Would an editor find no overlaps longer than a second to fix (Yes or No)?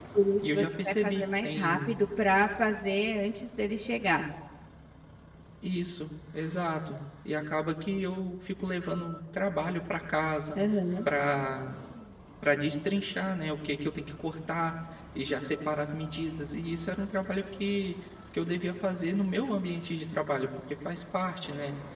No